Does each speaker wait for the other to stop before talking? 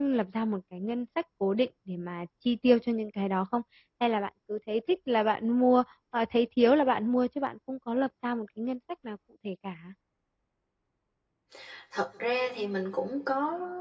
Yes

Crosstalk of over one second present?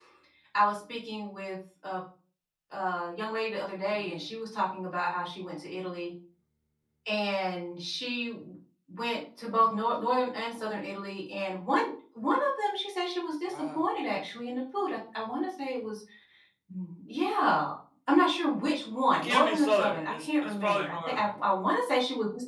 Yes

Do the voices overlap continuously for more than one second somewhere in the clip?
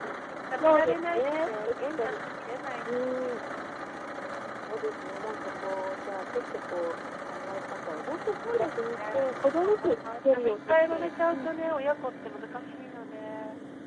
Yes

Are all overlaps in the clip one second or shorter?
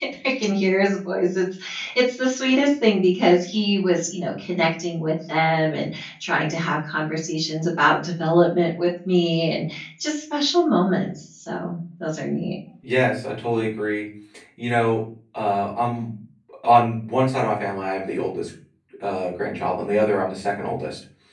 Yes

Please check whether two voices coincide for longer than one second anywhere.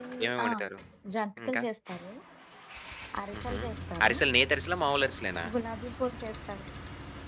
No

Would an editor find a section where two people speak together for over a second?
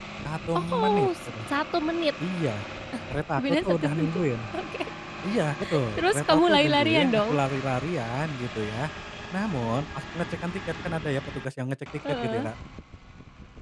Yes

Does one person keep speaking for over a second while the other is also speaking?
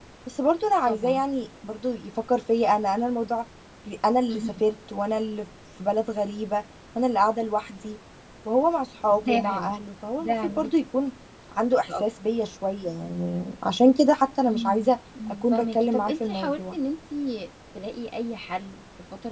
Yes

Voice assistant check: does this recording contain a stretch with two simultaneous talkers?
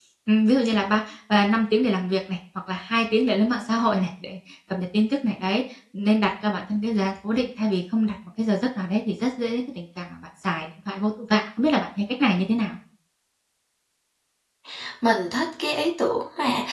No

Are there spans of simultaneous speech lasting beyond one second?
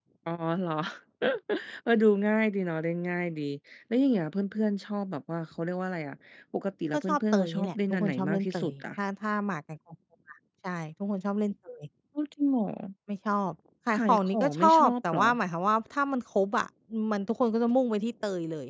Yes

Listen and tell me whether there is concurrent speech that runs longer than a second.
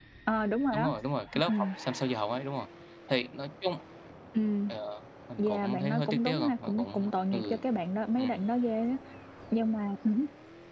Yes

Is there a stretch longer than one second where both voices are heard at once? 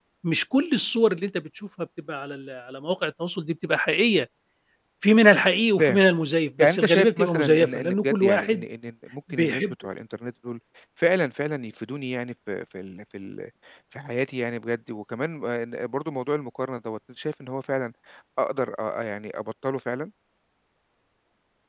Yes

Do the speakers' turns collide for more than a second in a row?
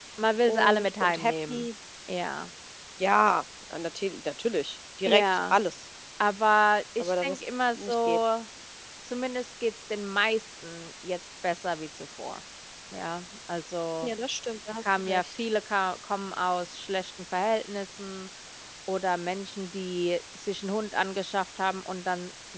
Yes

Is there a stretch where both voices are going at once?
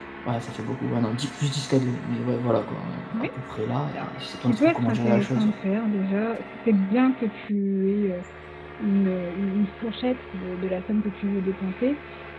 Yes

